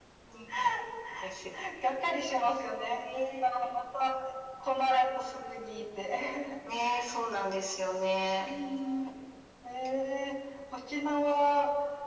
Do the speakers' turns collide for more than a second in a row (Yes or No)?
No